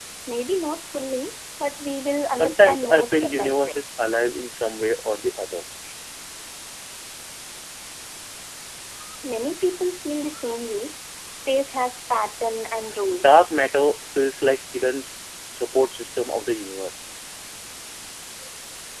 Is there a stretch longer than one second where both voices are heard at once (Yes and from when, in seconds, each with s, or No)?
Yes, from 2.3 s